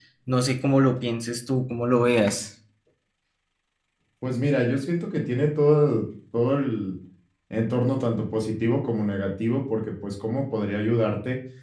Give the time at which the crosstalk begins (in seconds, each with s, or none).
none